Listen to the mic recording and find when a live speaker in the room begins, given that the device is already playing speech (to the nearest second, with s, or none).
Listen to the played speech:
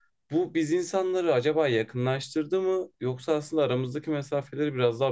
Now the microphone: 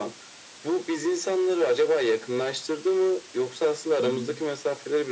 4 s